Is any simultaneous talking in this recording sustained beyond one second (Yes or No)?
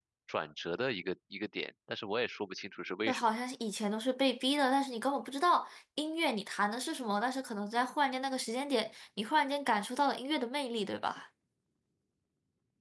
No